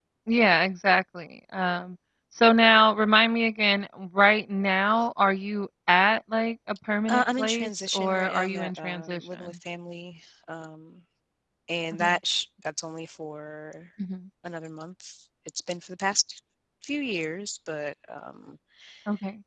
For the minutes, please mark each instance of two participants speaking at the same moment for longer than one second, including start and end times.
7.1-9.6

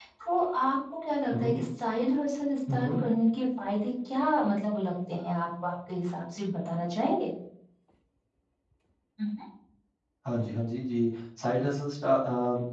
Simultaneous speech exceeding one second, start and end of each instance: none

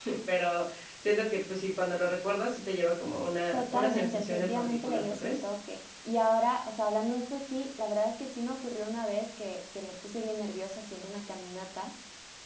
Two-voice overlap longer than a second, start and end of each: 3.5-5.3

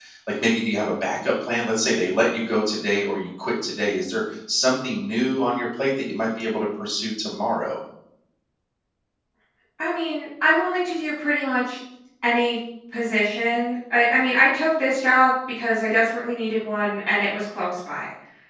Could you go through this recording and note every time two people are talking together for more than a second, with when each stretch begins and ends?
none

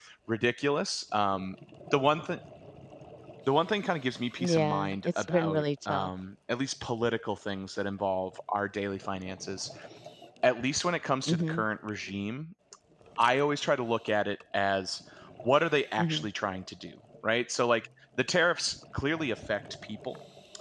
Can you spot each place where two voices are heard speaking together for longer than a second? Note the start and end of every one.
4.4-6.1

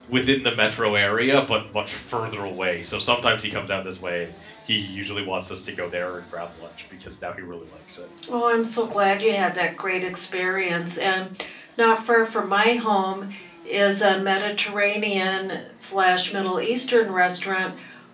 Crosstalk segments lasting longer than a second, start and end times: none

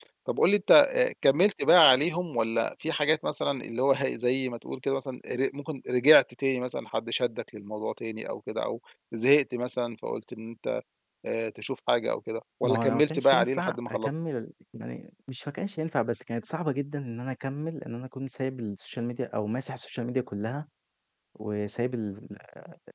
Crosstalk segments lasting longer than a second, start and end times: 12.6-14.1

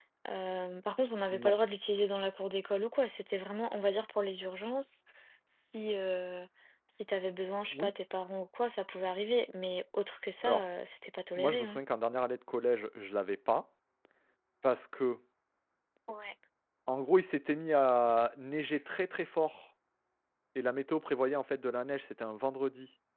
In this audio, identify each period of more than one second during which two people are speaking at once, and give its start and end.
none

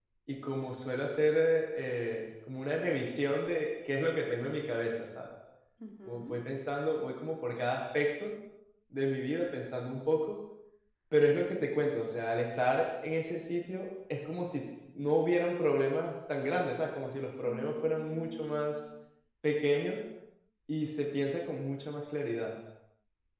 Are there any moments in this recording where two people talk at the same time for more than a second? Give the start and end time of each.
17.4-18.7

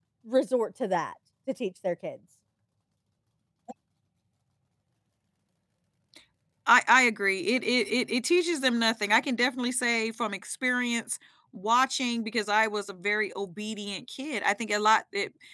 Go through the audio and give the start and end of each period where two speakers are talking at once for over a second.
none

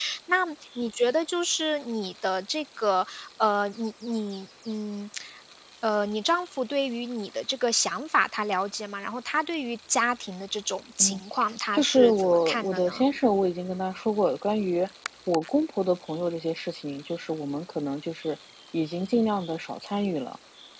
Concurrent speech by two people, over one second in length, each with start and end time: 11.7-13.0

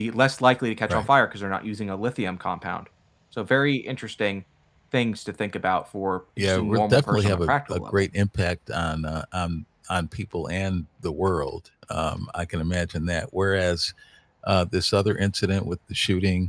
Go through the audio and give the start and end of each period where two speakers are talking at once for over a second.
6.4-8.1

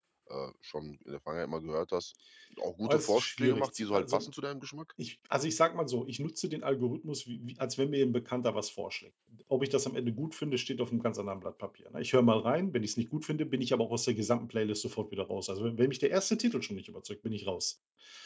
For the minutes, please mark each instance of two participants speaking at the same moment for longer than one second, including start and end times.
2.9-4.3

